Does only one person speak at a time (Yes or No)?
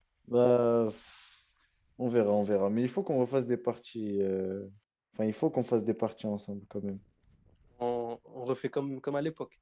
Yes